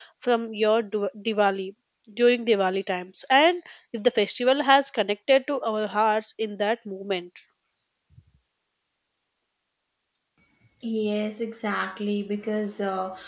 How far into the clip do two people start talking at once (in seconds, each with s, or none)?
none